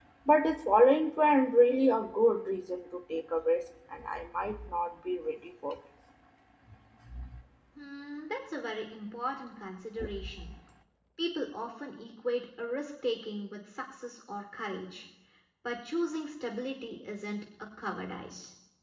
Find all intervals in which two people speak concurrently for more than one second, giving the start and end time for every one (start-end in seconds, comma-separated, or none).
none